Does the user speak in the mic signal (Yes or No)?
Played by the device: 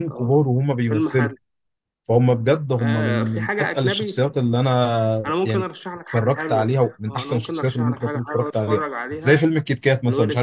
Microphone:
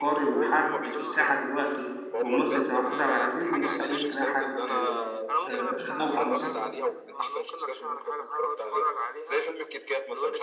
Yes